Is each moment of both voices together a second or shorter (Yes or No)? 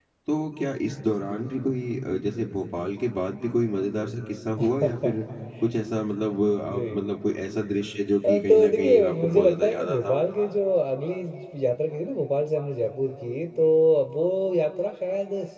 No